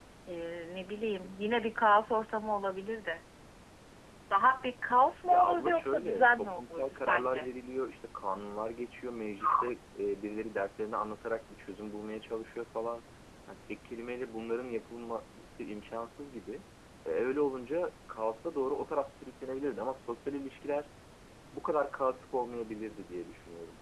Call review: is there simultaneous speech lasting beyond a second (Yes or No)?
Yes